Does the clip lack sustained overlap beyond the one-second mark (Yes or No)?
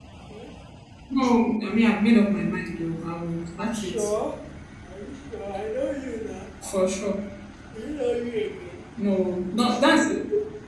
Yes